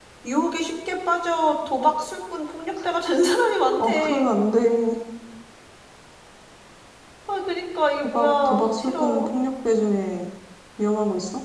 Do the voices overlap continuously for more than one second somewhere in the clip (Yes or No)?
Yes